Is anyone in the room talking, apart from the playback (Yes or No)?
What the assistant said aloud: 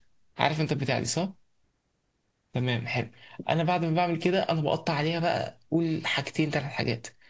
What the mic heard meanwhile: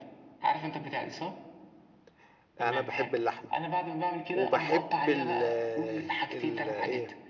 Yes